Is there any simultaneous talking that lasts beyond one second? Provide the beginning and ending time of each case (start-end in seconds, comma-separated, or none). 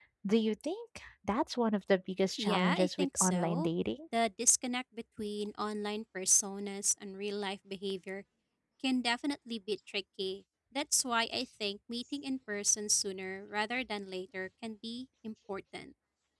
2.4-3.7